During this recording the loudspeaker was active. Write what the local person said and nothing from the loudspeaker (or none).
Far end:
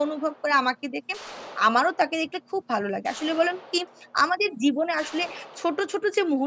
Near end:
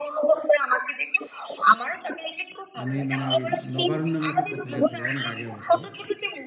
আমি মানে ওই 'নবারুণ' নামে একটা পত্রিকা ছিল অনেক আগে অবশ্য।